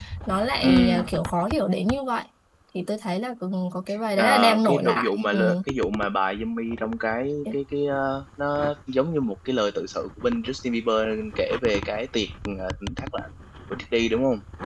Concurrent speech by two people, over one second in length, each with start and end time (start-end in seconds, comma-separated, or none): 4.2-5.4